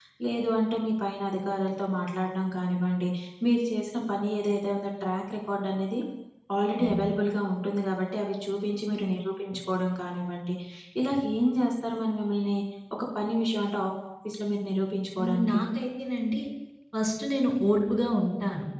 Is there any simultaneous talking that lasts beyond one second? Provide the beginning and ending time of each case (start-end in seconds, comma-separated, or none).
none